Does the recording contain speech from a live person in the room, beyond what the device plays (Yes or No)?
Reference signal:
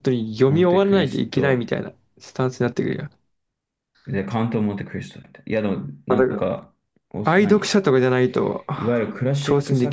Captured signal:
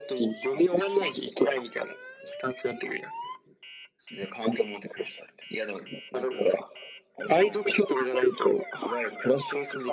No